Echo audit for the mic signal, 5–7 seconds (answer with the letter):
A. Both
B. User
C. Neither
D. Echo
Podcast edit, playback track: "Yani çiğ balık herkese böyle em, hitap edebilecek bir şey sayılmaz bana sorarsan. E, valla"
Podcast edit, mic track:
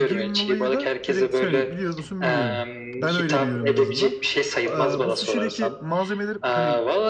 A